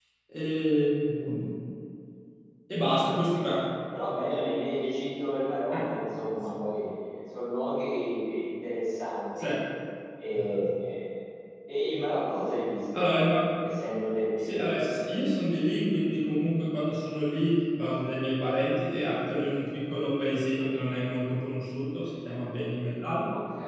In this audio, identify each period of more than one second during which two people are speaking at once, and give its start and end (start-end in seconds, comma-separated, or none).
none